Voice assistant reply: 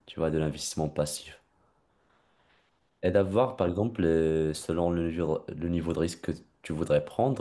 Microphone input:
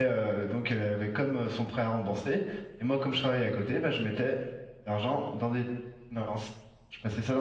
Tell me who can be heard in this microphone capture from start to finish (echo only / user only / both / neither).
user only